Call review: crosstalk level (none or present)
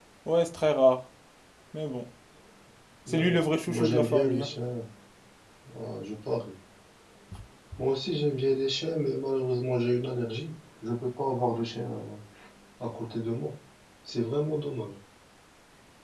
present